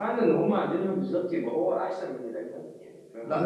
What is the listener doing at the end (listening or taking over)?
taking over